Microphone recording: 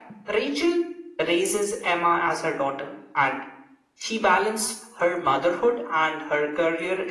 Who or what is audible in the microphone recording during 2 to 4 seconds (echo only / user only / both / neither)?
echo only